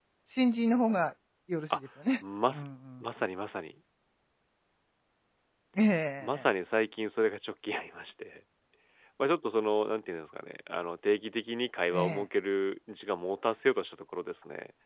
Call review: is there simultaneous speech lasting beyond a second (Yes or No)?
No